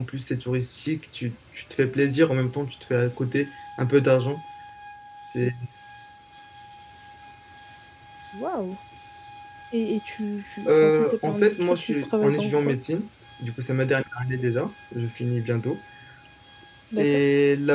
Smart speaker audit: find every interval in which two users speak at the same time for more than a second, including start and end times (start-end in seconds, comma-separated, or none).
10.7-12.8